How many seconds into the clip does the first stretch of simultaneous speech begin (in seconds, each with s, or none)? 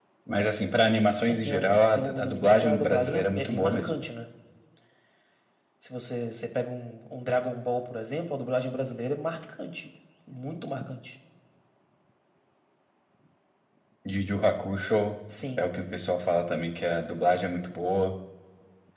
1.3 s